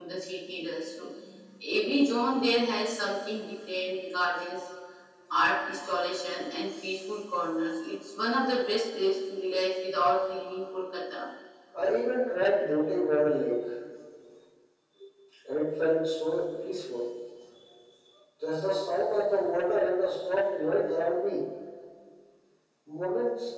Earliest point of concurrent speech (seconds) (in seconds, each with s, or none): none